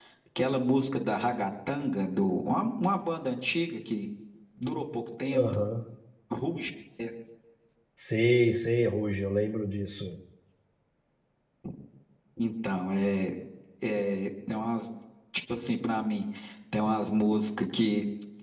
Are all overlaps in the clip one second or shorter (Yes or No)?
Yes